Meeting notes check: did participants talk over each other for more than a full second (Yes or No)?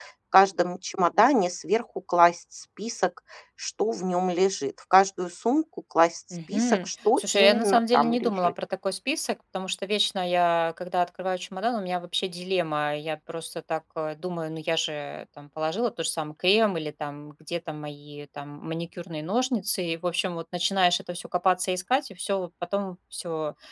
Yes